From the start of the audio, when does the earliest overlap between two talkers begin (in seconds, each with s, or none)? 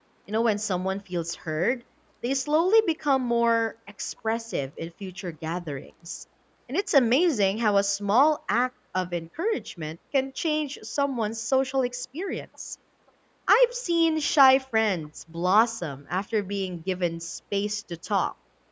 none